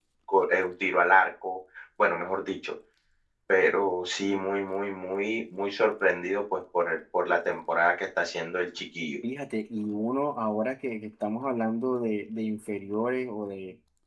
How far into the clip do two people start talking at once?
none

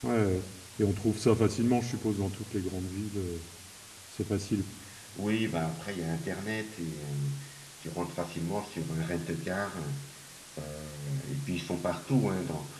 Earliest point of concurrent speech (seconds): none

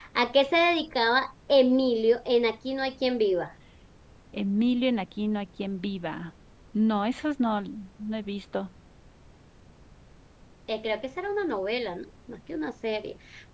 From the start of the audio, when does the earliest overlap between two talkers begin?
none

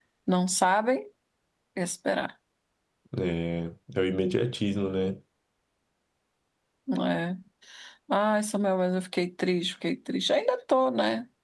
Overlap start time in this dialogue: none

